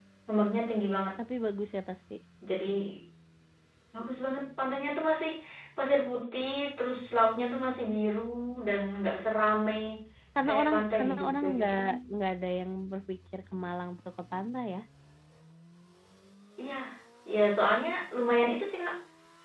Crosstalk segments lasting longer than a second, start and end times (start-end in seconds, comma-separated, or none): 10.5-11.7